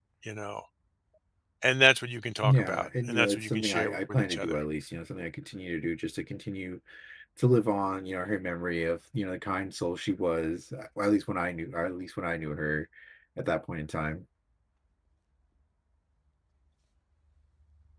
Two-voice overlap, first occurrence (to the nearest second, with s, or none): 2 s